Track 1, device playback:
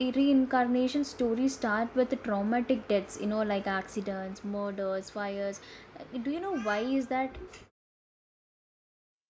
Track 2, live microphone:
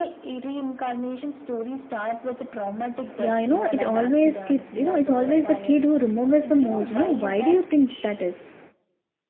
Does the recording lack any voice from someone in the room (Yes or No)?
No